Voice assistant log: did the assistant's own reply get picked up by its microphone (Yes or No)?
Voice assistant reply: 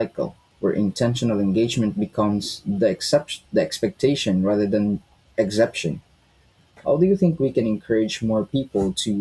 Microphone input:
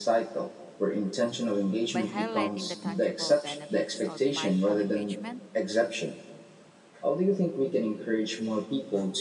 Yes